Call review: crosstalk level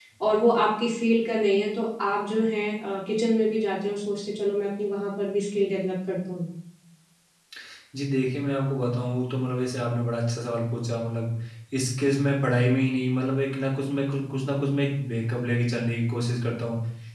none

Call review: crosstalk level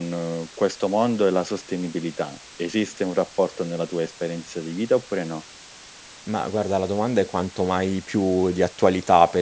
none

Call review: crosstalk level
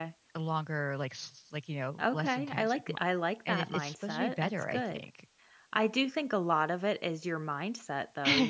present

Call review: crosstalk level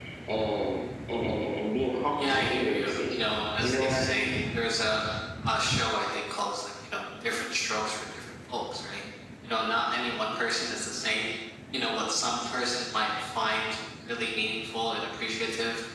present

